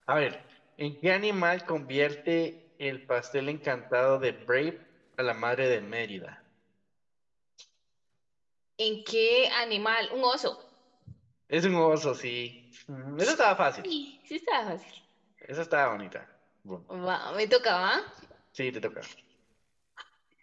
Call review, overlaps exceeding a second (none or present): none